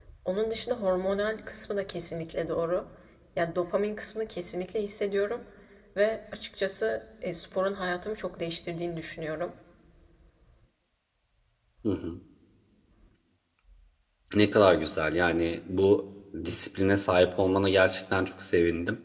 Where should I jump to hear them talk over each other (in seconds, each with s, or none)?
none